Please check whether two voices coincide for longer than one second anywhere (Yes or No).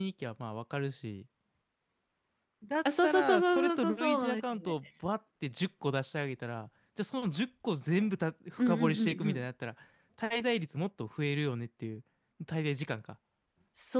Yes